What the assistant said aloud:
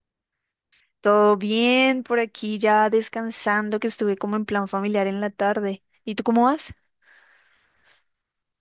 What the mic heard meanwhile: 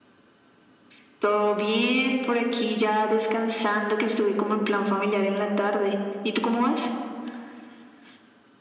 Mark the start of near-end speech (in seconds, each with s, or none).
none